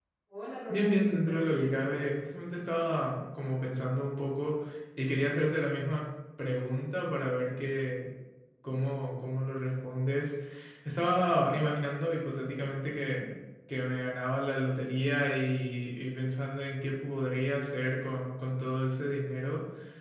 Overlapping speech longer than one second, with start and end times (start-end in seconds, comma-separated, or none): 0.7-2.0